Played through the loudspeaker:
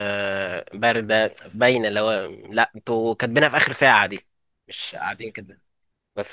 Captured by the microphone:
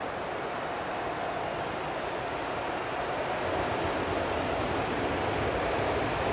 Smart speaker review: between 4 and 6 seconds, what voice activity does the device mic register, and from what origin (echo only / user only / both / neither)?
neither